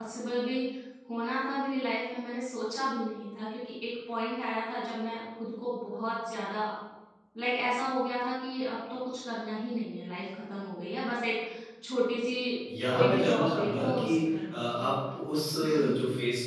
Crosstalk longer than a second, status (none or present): present